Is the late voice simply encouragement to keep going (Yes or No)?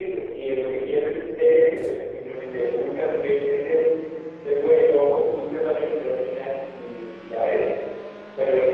Yes